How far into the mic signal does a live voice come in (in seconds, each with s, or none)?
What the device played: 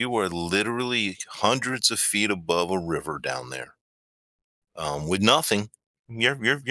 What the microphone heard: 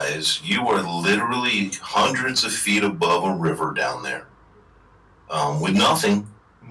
none